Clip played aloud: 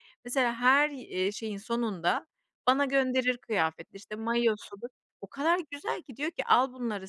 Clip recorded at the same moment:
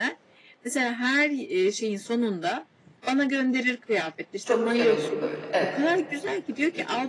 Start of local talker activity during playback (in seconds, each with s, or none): 4.4 s